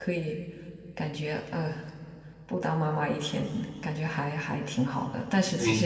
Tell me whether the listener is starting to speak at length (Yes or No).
No